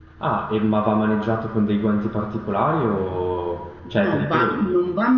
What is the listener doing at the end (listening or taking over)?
taking over